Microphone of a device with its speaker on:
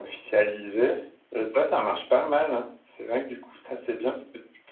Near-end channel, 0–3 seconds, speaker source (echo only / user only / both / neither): echo only